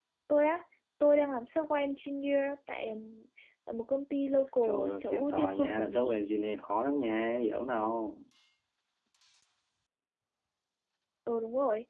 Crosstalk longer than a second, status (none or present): present